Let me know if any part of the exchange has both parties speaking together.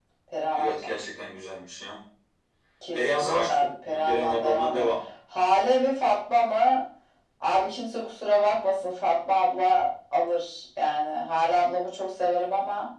Yes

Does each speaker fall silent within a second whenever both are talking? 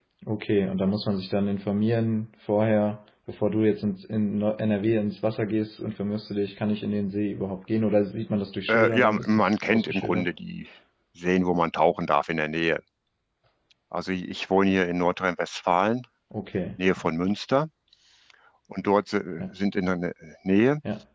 No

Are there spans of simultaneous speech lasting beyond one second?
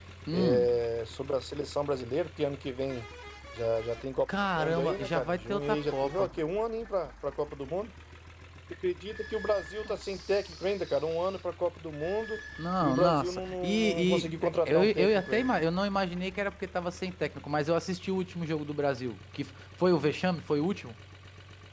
Yes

